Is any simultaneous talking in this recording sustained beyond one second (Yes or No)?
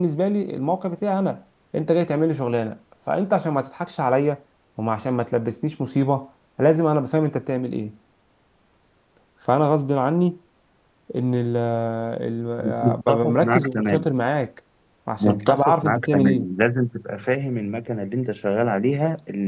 Yes